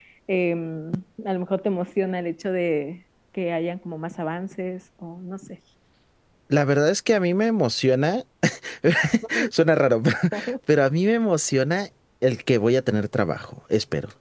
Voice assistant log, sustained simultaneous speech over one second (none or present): none